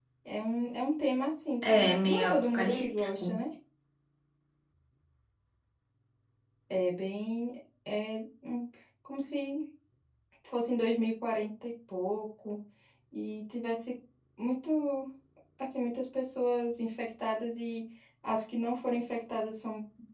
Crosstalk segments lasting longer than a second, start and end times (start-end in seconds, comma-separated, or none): 1.6-3.2